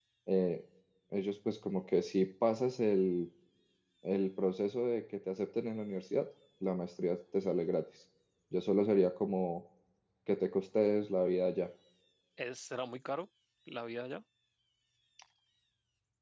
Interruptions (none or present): none